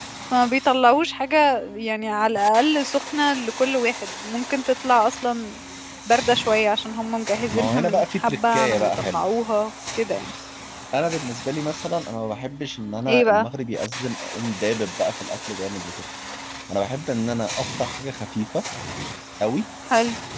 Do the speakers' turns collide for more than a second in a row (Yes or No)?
Yes